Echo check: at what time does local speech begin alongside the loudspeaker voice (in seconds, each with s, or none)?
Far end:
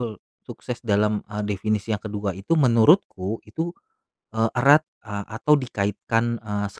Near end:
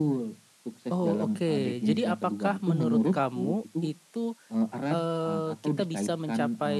0.9 s